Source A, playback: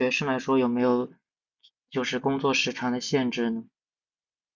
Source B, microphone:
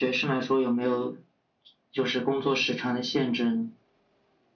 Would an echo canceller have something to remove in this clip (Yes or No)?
Yes